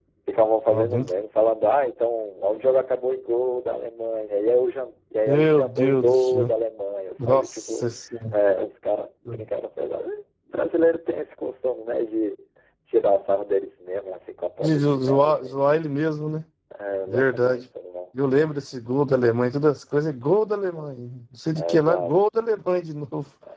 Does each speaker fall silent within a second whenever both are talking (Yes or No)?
No